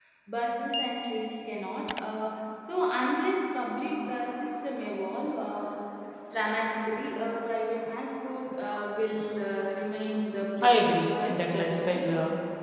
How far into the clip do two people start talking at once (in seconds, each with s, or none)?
10.6 s